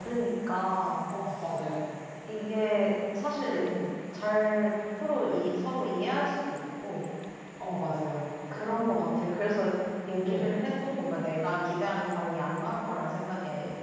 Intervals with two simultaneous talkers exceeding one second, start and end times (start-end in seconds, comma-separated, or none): none